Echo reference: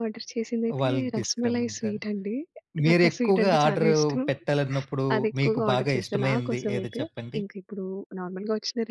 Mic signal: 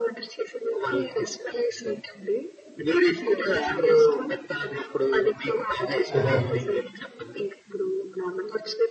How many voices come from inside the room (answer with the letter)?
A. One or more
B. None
A